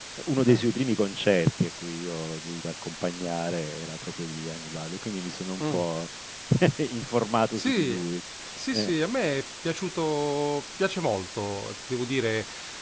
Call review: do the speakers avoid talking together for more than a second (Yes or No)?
Yes